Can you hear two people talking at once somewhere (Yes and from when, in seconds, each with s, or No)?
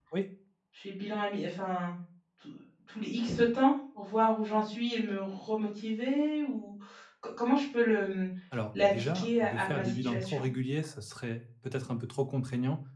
Yes, from 8.8 s